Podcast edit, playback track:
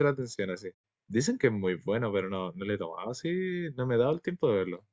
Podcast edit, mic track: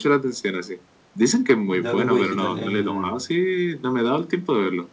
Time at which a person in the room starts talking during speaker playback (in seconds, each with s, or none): 1.6 s